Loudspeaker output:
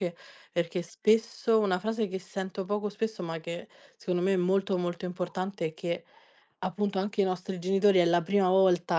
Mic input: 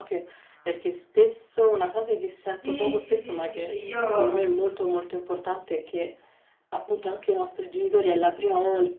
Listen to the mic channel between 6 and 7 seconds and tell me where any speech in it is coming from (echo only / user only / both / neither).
echo only